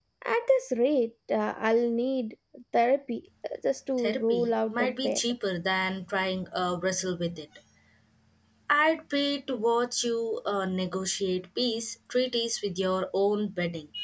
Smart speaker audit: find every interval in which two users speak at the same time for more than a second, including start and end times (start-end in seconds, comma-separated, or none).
4.0-5.2